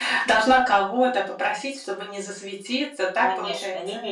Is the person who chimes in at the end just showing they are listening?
No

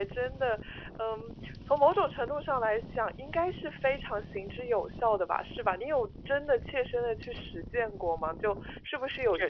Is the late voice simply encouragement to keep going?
Yes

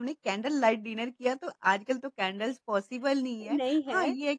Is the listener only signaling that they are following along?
Yes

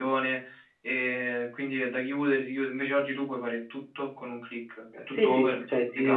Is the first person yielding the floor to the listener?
Yes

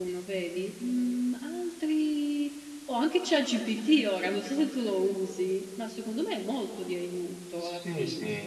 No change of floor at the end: No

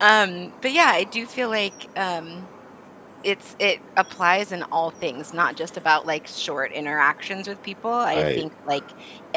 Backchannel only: Yes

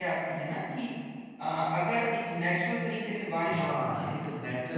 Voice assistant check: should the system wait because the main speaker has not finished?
No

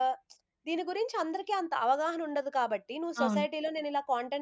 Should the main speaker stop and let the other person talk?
No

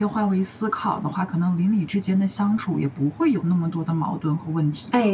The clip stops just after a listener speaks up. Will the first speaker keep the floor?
No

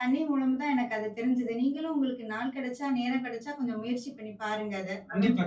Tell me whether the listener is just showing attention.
No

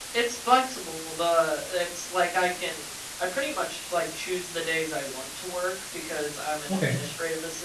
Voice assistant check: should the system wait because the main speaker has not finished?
Yes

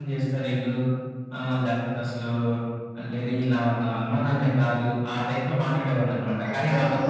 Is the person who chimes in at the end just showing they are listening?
No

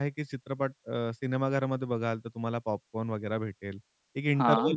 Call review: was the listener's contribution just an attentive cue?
Yes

